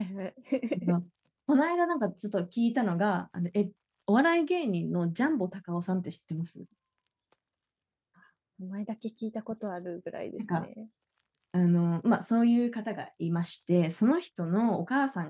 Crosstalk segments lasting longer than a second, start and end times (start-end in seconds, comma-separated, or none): none